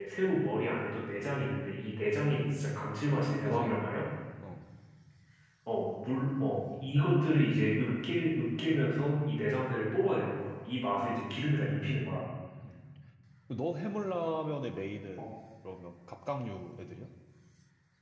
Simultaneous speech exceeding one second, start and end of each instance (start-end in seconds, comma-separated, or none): none